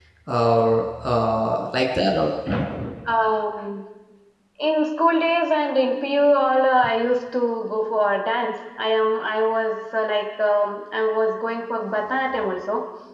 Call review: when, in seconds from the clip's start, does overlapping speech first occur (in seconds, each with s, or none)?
none